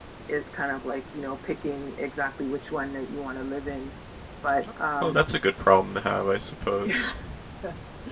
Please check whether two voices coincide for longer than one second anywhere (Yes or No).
No